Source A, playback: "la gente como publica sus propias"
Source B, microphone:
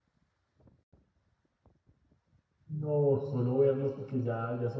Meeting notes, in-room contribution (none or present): present